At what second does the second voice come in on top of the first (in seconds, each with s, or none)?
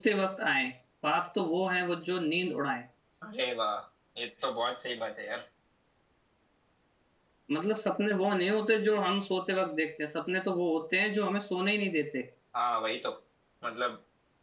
none